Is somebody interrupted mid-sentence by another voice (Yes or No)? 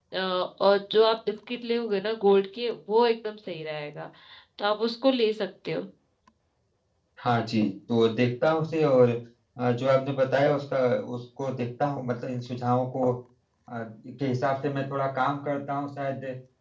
No